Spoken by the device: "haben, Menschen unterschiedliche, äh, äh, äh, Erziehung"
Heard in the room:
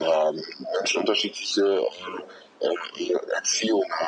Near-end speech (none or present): none